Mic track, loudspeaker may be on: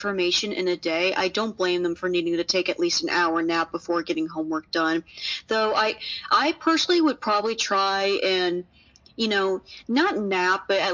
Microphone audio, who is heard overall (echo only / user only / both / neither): echo only